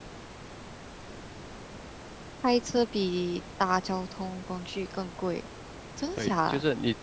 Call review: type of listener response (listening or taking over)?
taking over